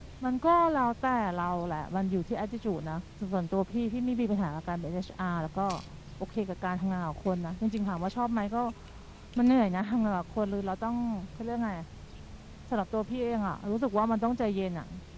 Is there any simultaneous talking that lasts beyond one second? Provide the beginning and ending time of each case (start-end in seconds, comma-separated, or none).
none